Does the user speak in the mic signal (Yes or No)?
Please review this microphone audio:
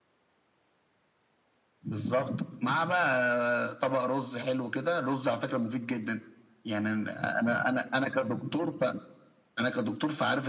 No